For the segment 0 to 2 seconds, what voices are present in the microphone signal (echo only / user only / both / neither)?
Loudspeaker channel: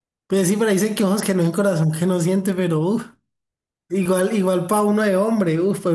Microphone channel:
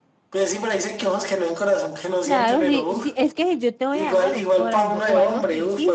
echo only